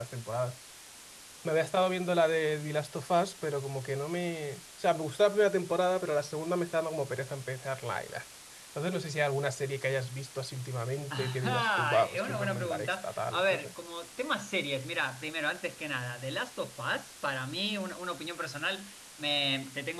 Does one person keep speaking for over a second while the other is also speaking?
Yes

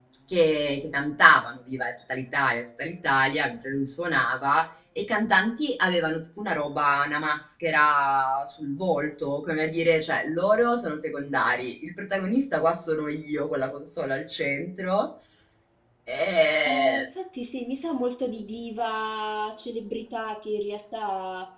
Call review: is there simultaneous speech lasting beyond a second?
No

